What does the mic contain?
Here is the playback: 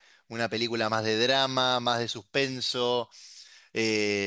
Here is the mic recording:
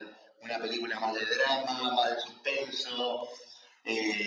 echo only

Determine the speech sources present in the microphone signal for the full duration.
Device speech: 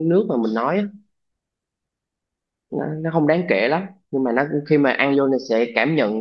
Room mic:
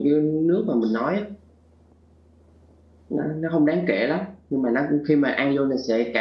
echo only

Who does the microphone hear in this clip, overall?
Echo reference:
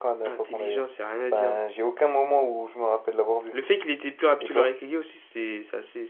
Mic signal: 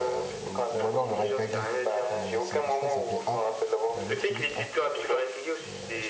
both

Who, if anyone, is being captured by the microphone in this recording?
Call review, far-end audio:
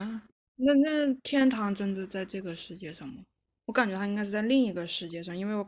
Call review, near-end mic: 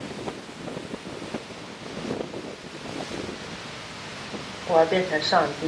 user only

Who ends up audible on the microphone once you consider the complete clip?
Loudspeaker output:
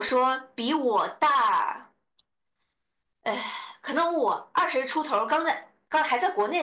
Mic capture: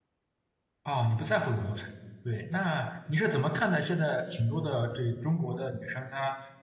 user only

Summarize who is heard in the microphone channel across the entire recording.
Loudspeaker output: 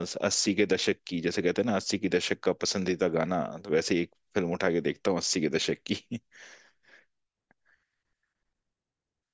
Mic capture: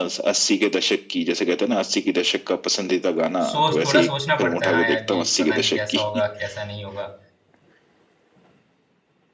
both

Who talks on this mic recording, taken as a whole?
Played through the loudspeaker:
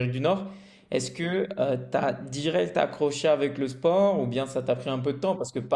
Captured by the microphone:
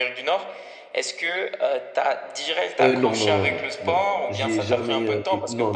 both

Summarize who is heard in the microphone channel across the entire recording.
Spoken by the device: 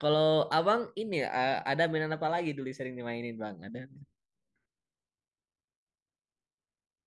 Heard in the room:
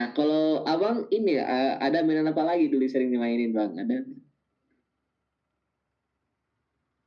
echo only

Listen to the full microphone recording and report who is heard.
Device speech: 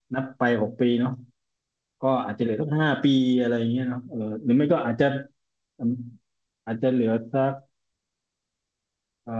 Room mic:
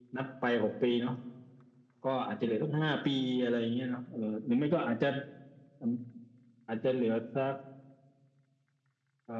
echo only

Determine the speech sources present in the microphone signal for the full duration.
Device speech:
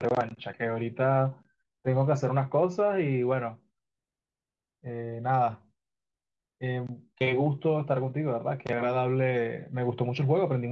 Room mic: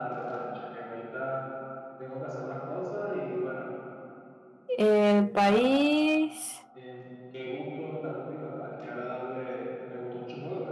both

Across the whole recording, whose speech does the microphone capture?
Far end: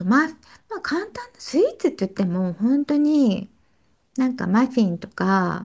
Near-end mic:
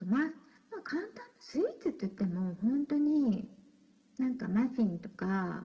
echo only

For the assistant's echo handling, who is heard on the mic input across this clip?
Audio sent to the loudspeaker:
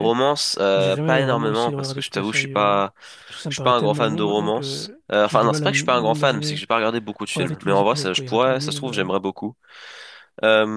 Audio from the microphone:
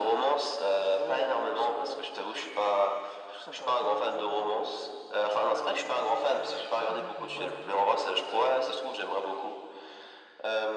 both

